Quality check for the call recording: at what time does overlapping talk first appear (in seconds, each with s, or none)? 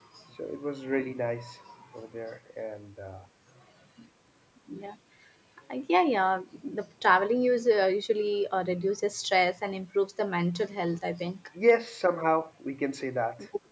none